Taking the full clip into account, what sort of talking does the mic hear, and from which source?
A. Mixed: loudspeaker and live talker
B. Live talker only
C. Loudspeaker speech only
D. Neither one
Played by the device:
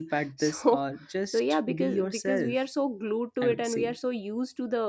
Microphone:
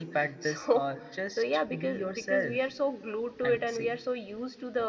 C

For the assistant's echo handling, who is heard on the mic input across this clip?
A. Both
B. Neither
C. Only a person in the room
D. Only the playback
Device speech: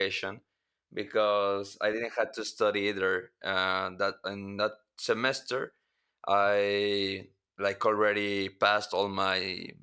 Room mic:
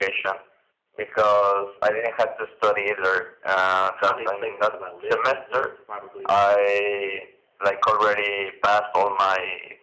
A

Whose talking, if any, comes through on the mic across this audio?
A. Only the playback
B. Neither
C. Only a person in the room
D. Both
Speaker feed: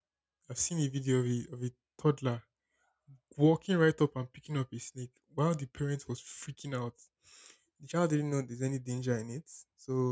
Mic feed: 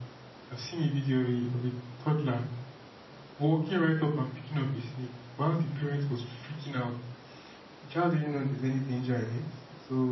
A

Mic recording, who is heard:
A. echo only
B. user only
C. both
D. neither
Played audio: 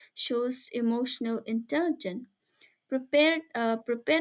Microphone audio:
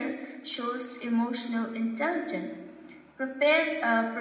A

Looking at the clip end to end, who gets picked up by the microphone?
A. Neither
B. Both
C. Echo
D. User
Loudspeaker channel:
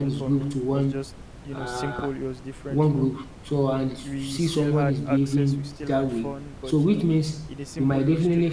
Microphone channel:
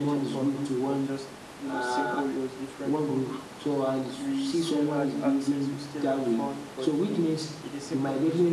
C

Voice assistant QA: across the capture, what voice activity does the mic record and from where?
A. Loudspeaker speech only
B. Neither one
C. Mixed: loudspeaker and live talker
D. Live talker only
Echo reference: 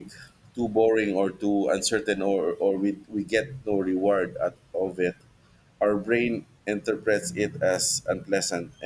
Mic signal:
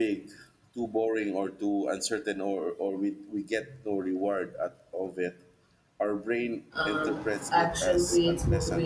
C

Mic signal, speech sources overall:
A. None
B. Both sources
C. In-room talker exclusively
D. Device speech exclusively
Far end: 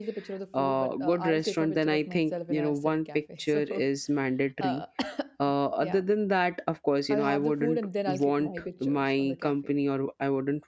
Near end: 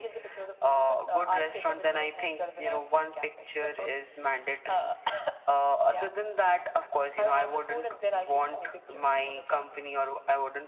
D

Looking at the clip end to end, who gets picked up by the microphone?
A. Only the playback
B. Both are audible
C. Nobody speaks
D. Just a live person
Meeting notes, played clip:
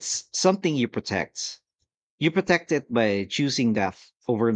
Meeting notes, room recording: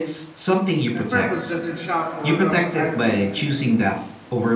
B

